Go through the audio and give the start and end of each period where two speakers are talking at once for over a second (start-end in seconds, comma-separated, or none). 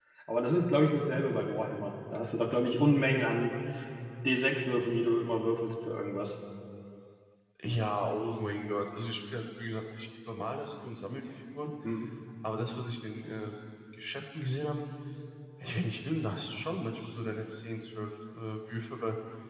none